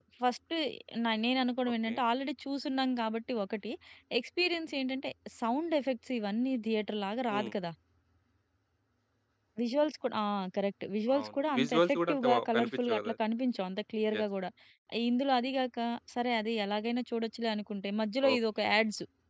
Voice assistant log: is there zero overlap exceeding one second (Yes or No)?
No